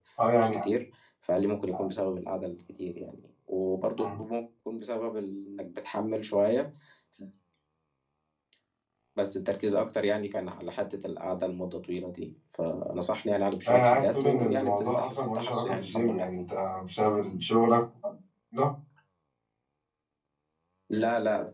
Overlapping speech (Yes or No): Yes